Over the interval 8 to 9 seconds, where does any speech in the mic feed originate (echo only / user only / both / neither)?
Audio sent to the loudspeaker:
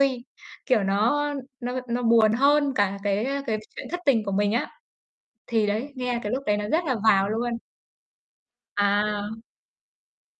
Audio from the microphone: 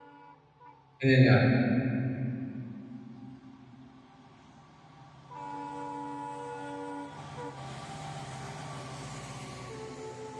neither